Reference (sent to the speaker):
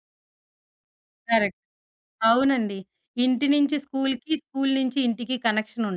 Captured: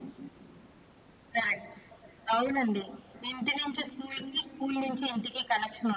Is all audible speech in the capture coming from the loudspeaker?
Yes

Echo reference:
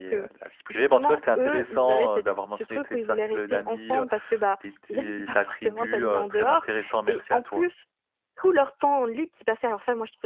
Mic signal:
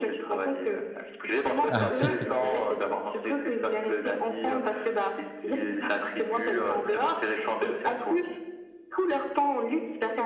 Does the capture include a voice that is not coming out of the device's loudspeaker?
Yes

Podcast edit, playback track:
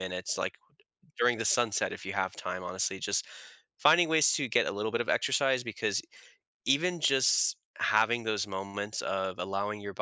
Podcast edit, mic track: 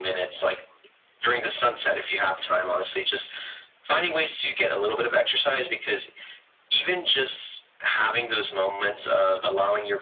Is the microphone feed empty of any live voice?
Yes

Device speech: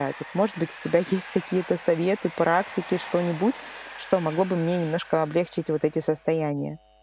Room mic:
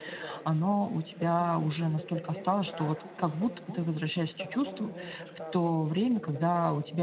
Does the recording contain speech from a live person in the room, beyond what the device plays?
Yes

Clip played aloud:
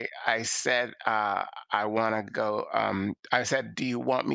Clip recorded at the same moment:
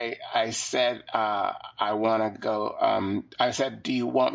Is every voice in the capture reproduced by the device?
Yes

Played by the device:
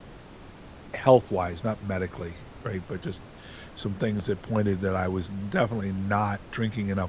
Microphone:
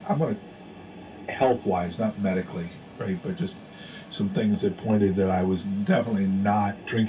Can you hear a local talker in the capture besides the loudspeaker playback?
No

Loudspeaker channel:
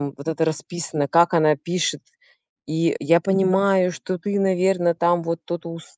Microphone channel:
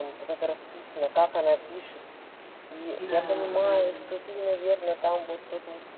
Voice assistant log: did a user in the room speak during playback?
Yes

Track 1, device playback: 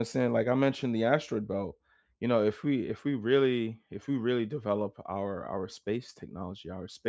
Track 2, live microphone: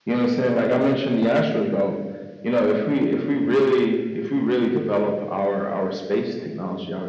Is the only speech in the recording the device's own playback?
Yes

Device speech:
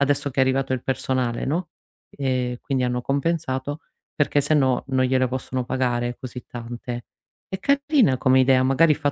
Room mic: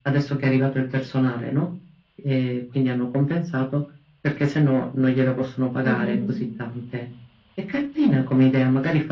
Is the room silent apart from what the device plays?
No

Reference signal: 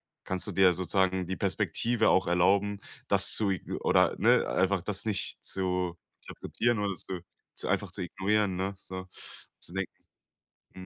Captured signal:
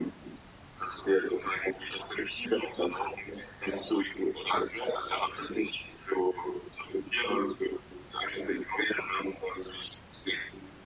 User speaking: No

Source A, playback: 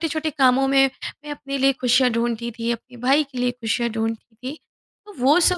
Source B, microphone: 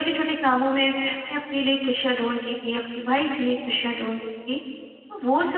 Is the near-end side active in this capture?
No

